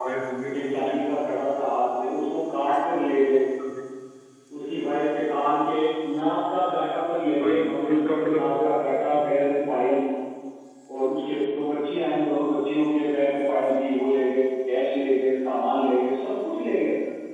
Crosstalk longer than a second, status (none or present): present